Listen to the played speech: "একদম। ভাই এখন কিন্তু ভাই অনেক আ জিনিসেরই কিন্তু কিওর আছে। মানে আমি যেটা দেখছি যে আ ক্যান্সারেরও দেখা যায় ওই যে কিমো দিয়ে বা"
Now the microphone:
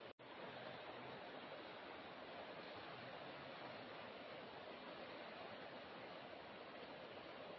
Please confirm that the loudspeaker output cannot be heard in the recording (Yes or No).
Yes